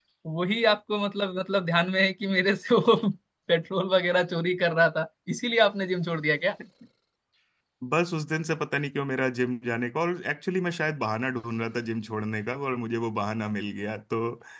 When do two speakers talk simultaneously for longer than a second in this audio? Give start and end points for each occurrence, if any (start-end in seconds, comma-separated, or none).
none